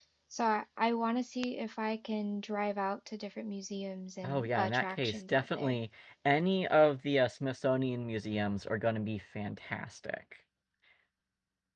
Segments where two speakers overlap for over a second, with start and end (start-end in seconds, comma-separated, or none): 4.2-5.8